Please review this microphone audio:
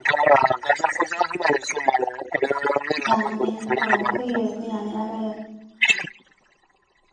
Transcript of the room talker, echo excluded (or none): जानानै औ फैयो फैनानै आरो